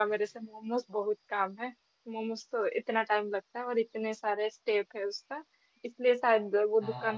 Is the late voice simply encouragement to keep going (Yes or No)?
Yes